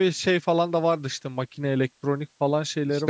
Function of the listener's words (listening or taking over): taking over